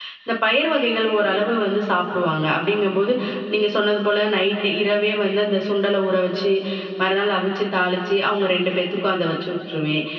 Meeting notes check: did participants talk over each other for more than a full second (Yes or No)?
No